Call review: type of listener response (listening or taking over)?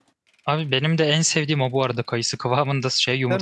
listening